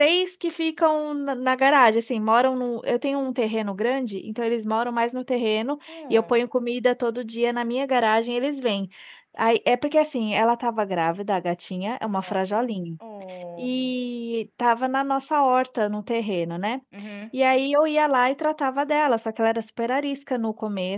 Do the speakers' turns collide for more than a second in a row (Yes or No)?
No